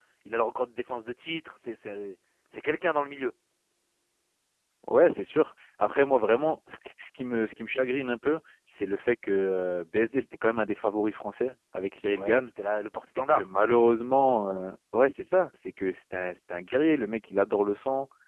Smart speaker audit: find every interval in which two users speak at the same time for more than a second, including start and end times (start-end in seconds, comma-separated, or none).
none